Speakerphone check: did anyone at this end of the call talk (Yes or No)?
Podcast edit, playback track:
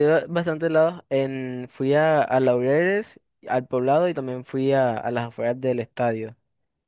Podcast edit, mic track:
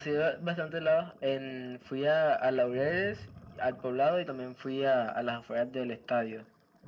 No